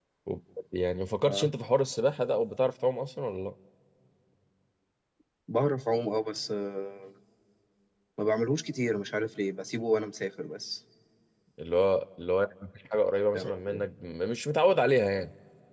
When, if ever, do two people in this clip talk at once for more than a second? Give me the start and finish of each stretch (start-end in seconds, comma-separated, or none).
none